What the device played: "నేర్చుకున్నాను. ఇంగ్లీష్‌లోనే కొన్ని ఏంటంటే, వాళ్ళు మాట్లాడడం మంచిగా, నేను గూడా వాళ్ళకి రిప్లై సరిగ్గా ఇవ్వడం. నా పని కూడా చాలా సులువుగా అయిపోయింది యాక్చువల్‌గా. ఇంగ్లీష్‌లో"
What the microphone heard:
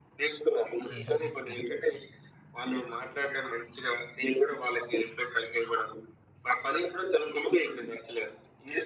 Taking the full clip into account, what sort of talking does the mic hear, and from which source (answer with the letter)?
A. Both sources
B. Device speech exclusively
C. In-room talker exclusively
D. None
A